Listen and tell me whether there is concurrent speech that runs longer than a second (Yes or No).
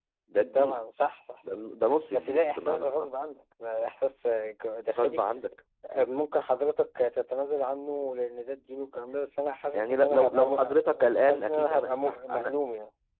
Yes